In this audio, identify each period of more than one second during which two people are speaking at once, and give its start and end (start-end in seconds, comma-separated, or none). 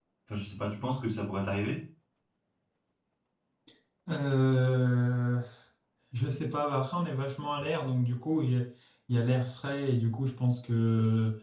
none